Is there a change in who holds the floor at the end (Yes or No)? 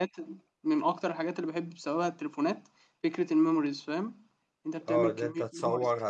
Yes